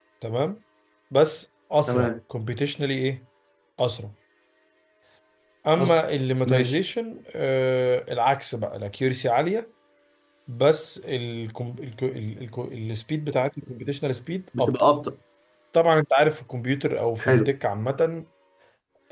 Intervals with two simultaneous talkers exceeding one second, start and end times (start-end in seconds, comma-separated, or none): none